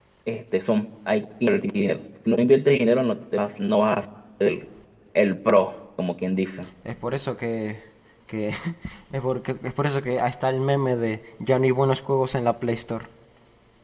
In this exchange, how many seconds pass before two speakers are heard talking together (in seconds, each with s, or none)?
none